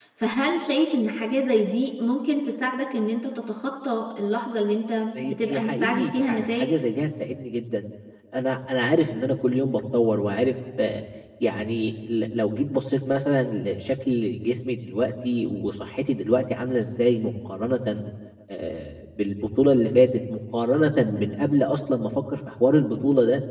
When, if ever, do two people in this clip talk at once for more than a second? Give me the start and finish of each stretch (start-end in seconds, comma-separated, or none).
5.2-6.7